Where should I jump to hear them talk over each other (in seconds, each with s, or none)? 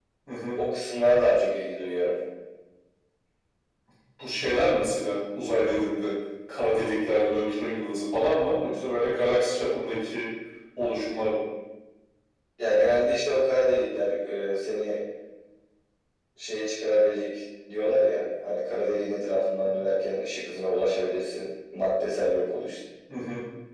none